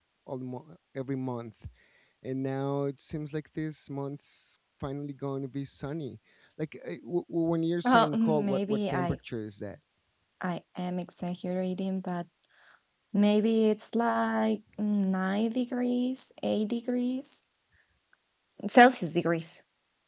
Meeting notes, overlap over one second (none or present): present